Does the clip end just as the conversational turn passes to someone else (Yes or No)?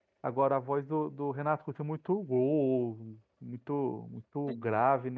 No